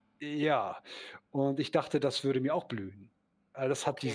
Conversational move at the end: taking over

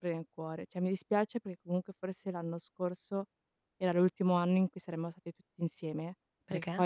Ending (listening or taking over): listening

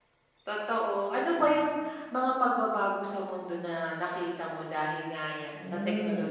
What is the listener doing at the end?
taking over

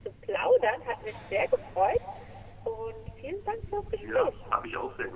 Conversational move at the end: taking over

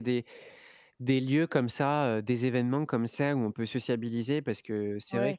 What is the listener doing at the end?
taking over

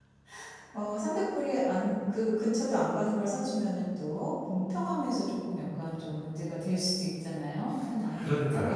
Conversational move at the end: taking over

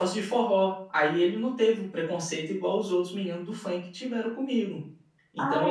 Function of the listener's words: taking over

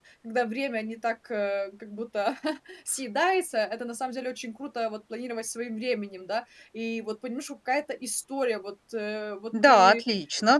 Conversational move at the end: taking over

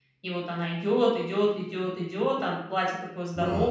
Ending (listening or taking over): taking over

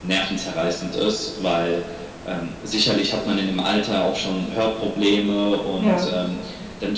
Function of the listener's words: listening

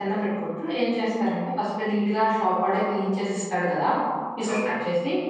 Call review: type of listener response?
listening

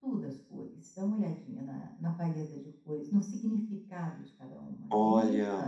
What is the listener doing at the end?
taking over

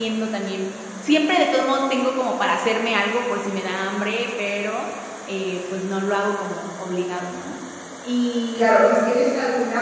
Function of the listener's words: taking over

